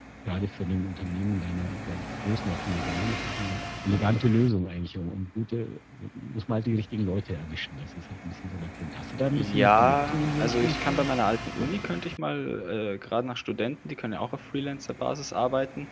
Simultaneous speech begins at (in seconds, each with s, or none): 9.3 s